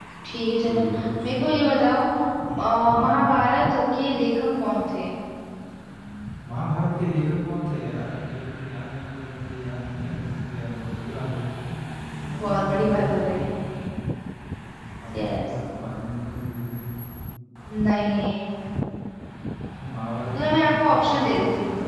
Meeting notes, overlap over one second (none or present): present